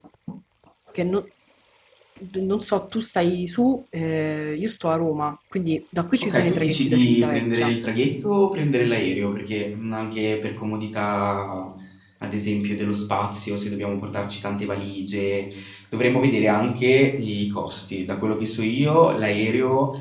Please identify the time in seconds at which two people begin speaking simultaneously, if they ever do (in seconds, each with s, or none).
6.1 s